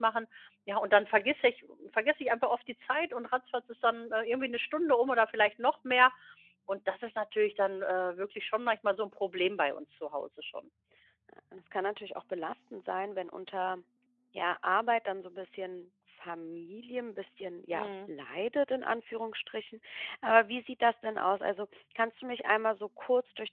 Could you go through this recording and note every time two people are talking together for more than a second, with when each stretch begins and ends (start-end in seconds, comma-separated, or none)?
none